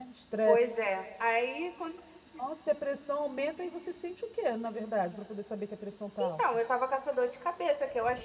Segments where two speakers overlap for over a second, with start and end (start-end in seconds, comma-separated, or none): none